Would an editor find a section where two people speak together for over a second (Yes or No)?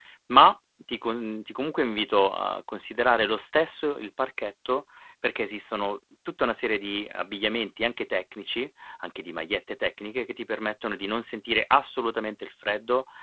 No